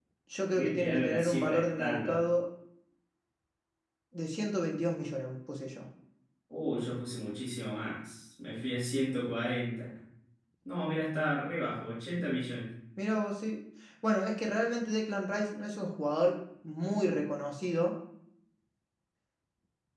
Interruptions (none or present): present